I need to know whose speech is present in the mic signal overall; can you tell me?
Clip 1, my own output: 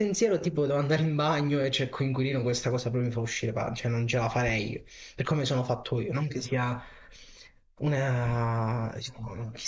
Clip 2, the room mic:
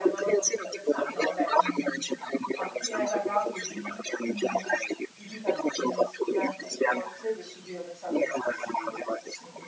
both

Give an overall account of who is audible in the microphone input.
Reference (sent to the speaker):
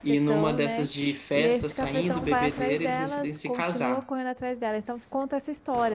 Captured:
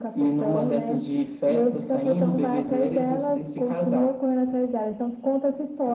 echo only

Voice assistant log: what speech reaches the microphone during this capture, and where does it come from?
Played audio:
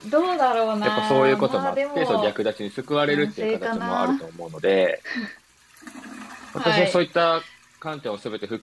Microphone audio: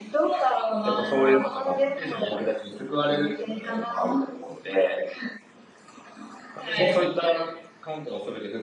echo only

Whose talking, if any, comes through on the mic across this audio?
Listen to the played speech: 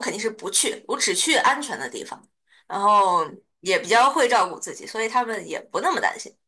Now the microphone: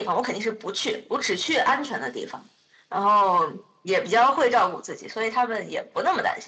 echo only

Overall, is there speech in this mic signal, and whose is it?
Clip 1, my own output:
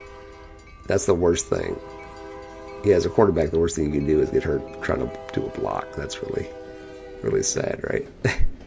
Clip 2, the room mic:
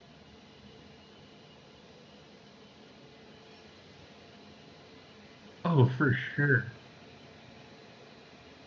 user only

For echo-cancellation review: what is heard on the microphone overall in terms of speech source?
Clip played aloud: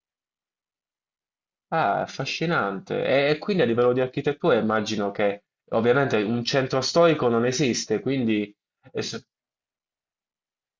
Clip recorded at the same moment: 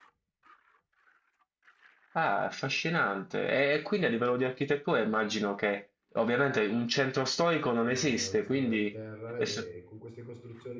both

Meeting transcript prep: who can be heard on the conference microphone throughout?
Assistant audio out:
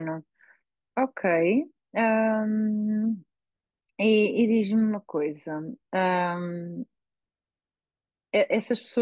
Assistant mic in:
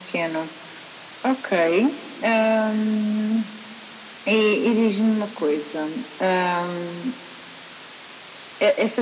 echo only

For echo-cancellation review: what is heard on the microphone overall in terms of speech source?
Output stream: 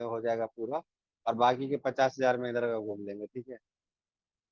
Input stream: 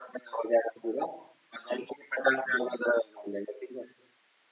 echo only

